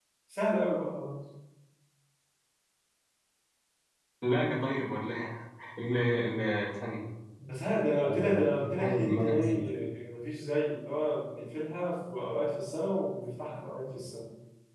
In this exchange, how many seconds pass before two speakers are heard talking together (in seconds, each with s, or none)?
8.0 s